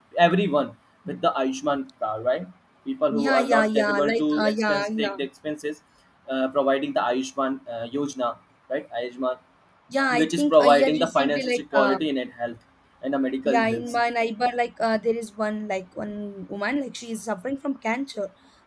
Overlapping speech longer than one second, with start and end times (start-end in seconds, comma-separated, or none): 3.1-5.1, 10.1-12.0